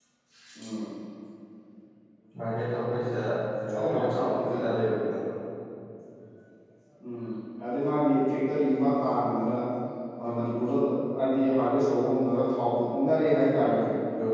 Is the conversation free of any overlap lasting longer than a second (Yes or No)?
No